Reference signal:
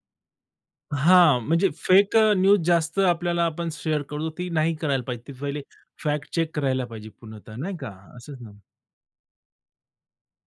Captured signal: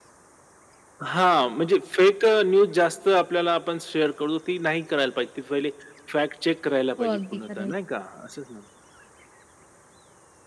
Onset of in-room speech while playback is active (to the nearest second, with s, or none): 7 s